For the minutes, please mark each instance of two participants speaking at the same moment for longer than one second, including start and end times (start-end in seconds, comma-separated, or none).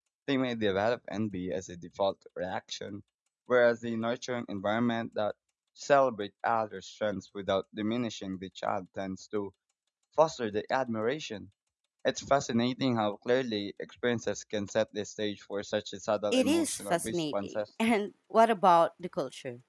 16.3-17.6